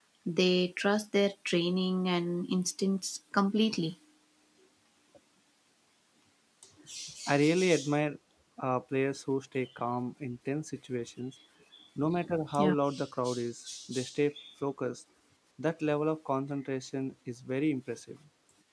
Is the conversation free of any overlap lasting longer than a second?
Yes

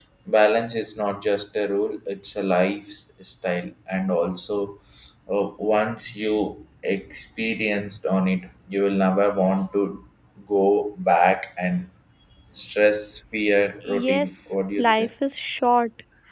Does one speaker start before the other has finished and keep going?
Yes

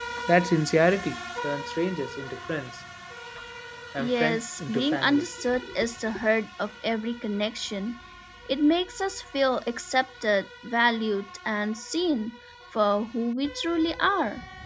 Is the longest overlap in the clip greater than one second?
Yes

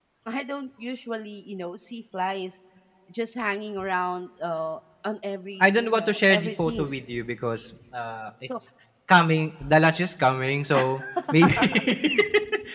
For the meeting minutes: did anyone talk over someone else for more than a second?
Yes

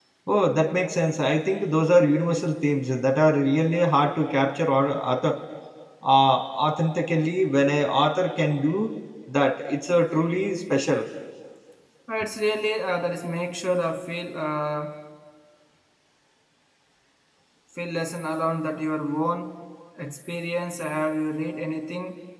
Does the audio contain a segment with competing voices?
No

